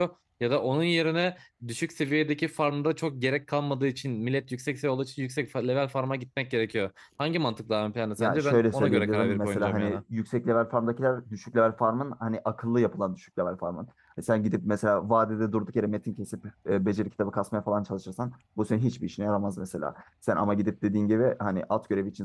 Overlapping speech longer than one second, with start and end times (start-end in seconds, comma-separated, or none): 8.2-10.0